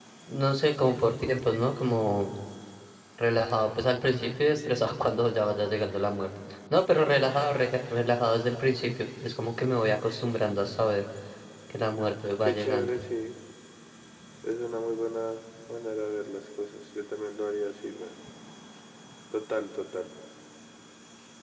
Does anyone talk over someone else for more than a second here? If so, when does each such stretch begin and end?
none

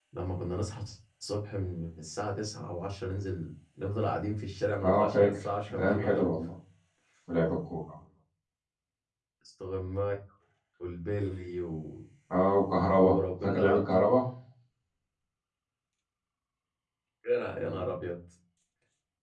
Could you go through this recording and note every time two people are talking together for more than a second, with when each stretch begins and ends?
4.8-6.3, 12.7-14.0

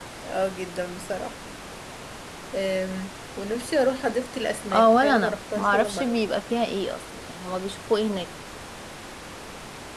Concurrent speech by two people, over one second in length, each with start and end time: 4.7-6.2

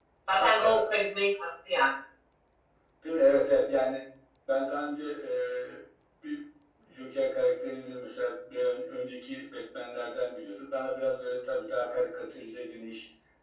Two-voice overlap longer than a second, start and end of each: none

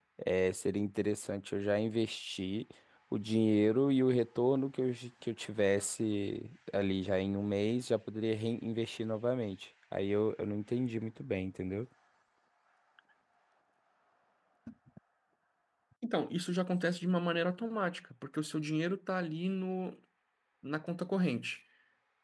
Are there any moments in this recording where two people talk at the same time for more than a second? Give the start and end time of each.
none

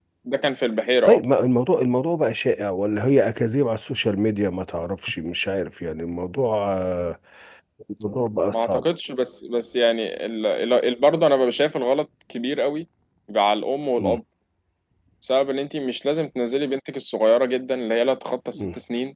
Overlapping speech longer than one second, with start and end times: none

